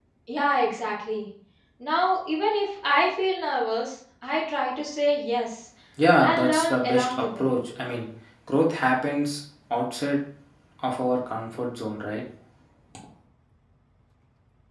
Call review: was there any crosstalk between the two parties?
Yes, from 6.2 s

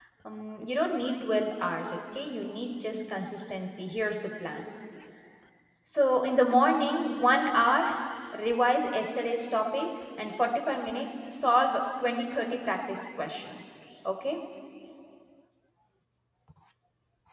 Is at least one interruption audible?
No

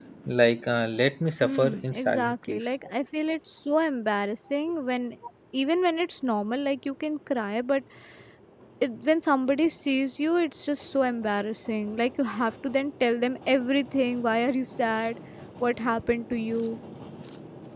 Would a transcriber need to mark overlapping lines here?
Yes, from 1.4 s

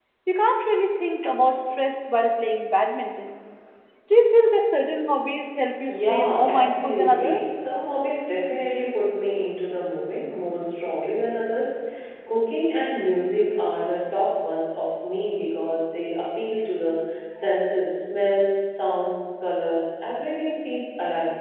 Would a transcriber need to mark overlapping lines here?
Yes, from 5.9 s

